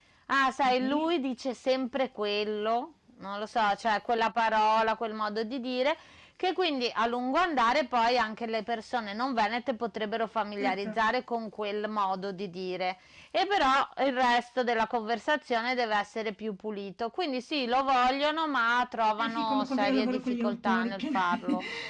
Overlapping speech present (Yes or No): Yes